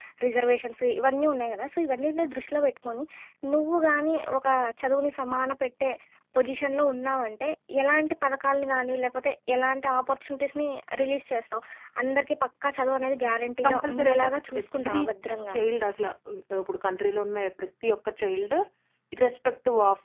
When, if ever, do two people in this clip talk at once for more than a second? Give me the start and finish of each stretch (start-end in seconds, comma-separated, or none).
13.6-15.0